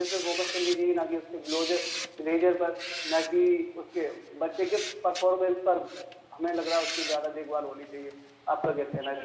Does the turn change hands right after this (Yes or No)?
Yes